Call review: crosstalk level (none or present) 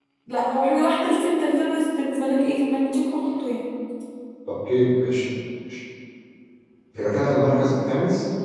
none